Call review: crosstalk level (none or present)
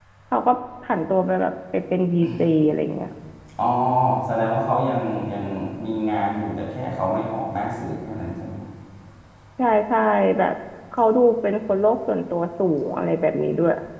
none